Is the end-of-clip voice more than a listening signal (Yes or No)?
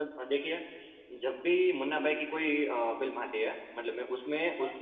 No